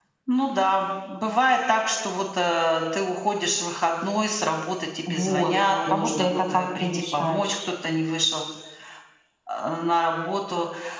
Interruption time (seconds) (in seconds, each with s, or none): 5.1 s